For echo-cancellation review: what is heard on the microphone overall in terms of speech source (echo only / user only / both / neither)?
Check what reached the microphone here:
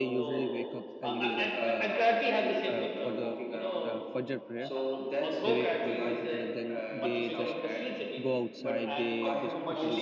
both